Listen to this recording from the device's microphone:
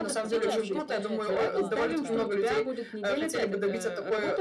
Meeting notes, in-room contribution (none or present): present